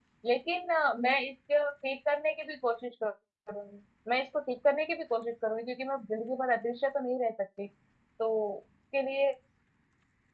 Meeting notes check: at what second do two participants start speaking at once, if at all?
none

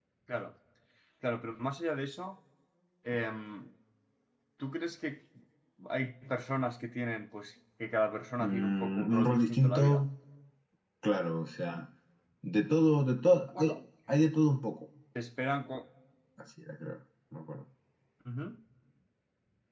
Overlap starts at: 8.4 s

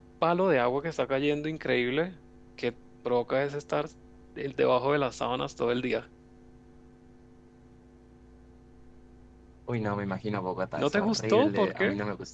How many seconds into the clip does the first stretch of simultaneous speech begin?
10.8 s

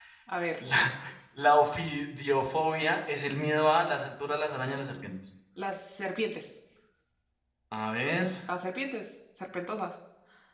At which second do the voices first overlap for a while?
none

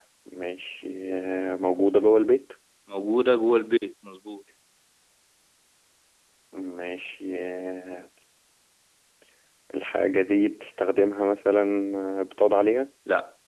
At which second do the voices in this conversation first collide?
none

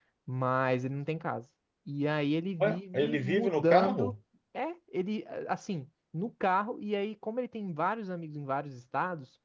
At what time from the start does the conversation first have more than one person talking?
2.6 s

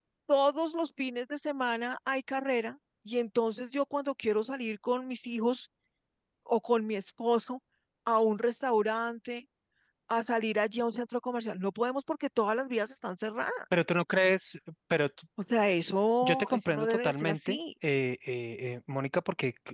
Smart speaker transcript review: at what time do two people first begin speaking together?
16.2 s

